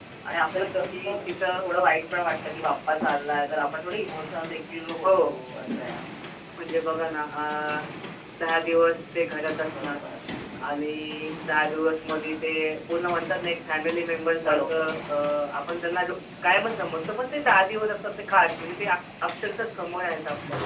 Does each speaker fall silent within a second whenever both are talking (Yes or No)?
Yes